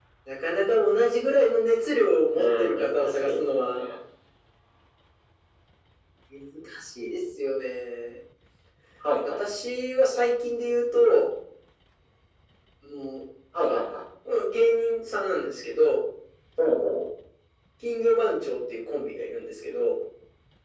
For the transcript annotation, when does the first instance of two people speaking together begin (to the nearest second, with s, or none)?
2 s